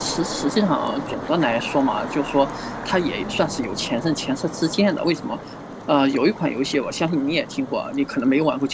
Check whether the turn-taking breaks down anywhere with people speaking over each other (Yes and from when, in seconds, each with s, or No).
No